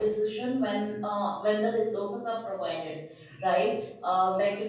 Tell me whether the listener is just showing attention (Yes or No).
Yes